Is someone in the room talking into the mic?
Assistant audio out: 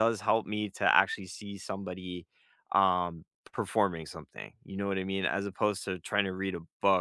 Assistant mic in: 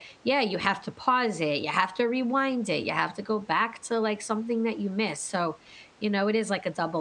Yes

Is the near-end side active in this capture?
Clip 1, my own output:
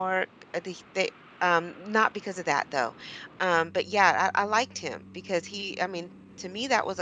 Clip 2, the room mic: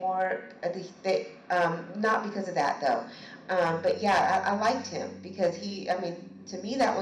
No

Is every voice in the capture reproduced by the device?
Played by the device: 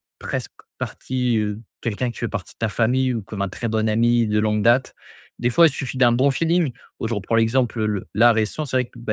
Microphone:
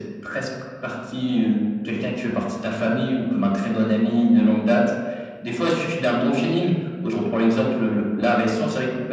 Yes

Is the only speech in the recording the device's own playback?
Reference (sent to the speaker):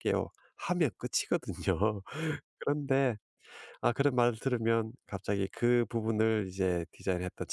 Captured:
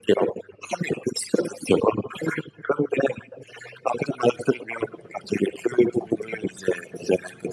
Yes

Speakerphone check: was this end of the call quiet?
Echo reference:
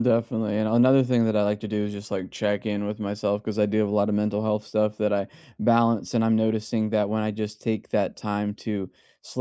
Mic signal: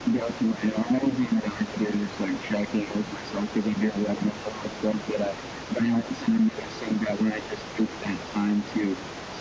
Yes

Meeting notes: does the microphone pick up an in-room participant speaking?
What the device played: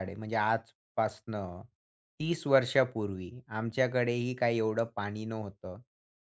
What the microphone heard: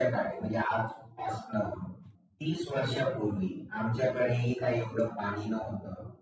No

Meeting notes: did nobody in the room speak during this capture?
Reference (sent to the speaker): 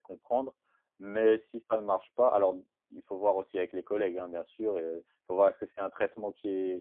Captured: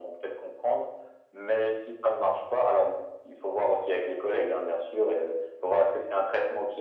Yes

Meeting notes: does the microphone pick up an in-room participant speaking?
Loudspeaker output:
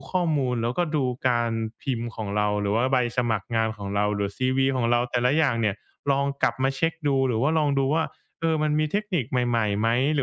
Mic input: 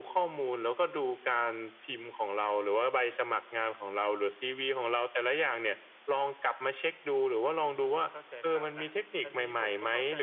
Yes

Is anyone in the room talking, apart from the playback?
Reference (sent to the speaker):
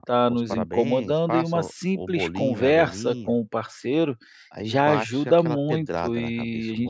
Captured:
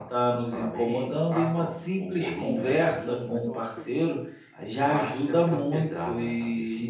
Yes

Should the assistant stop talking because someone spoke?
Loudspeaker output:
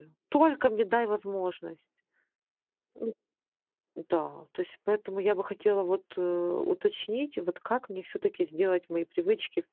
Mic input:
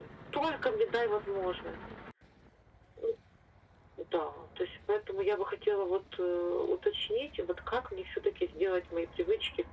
No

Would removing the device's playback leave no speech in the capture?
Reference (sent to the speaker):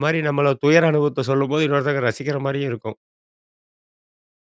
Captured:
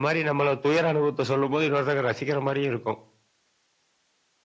Yes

